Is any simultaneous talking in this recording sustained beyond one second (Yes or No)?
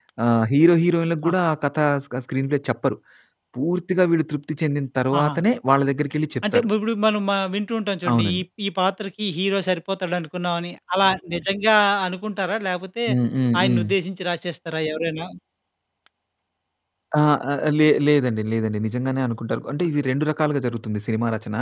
No